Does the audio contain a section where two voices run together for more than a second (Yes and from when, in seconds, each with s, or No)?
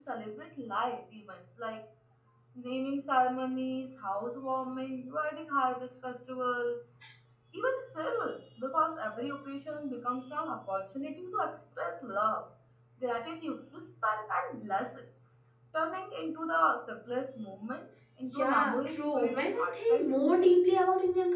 Yes, from 18.4 s